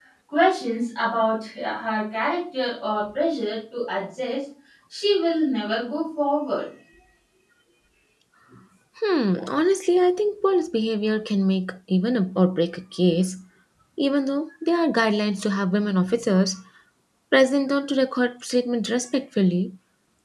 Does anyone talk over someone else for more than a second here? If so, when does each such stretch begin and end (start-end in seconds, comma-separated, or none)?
none